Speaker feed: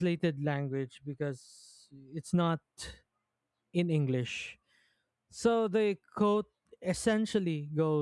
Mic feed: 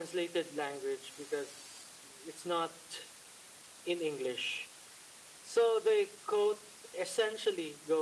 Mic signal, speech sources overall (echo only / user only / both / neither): echo only